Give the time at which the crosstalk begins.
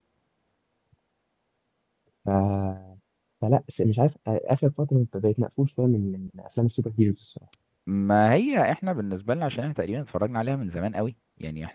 none

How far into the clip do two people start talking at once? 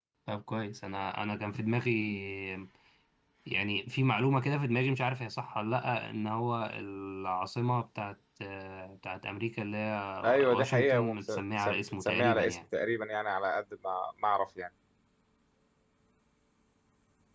10.2 s

